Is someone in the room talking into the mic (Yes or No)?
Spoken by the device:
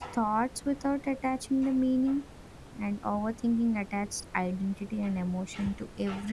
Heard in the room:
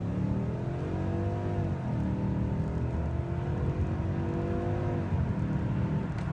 No